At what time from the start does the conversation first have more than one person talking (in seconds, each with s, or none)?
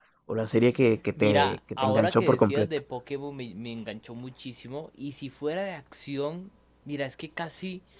1.2 s